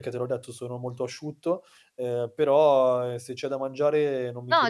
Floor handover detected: Yes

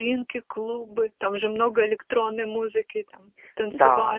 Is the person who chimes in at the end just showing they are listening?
No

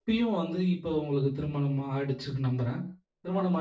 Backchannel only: Yes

